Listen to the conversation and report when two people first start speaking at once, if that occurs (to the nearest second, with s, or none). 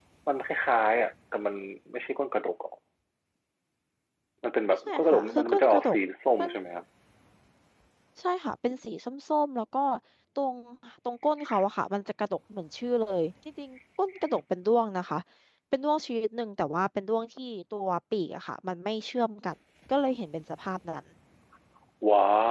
5 s